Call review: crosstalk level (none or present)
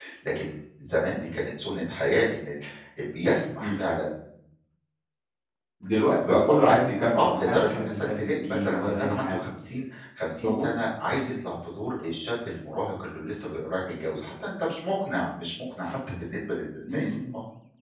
present